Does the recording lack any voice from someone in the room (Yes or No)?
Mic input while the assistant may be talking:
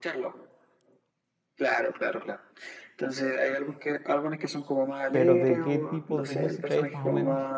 No